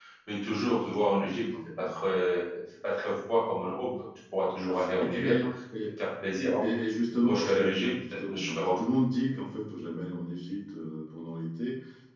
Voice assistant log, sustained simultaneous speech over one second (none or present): present